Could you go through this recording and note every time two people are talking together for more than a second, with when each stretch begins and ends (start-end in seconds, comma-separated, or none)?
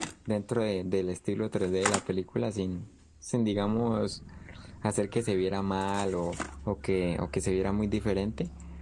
none